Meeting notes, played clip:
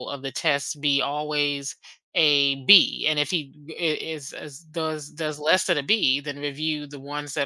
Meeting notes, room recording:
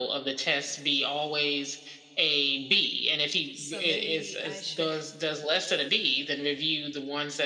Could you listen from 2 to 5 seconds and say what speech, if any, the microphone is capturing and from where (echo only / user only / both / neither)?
both